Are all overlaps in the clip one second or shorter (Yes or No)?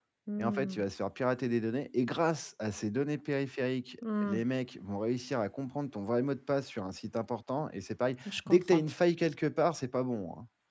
Yes